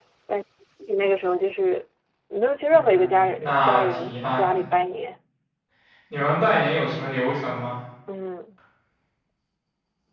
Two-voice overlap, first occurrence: 3 s

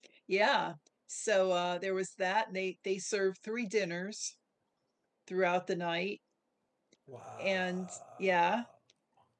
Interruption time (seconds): 7 s

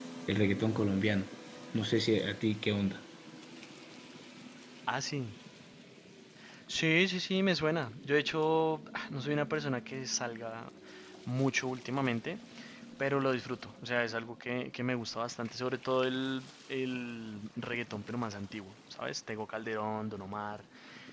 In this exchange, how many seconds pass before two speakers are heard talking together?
none

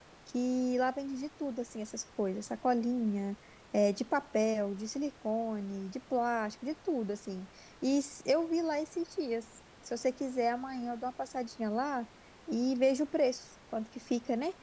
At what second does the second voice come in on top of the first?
none

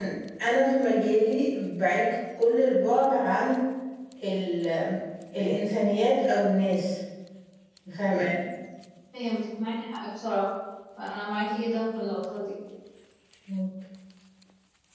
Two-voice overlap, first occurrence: none

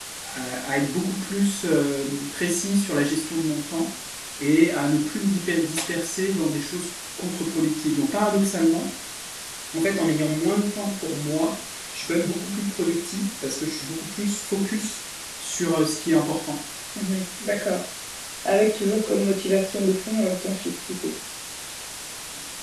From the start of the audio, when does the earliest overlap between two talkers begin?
none

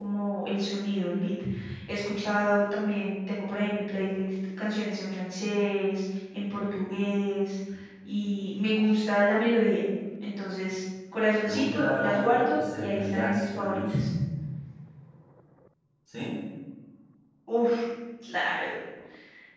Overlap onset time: 11 s

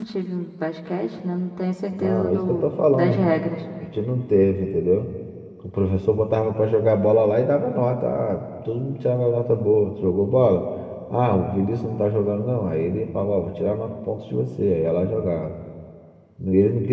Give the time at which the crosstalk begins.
2 s

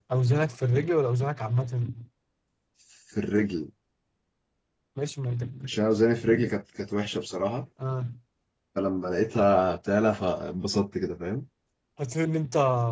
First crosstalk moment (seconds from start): none

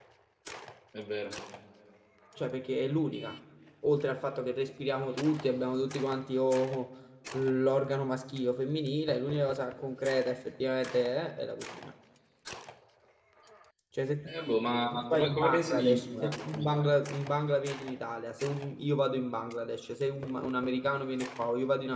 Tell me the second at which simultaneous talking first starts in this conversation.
15 s

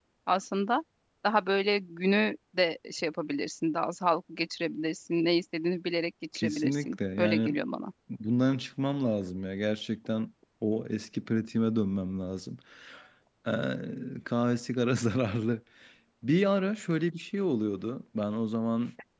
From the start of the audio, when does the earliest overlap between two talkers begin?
6 s

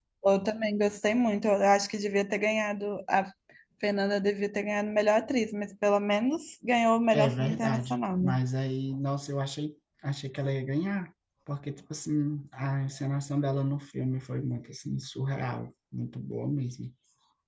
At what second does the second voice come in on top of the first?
7 s

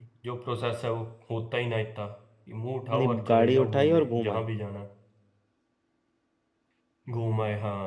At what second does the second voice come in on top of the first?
3 s

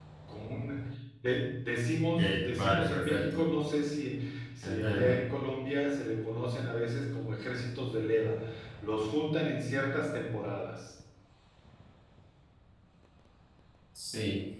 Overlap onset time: 2 s

